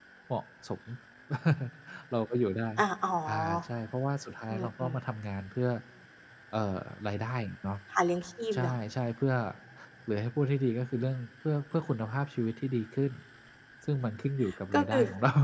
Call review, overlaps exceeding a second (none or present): none